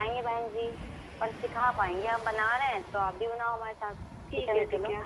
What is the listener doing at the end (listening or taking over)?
taking over